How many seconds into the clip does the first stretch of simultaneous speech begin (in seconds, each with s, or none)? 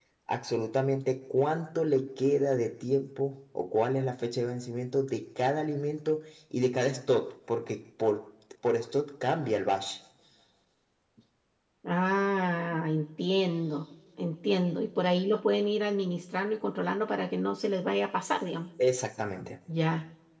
none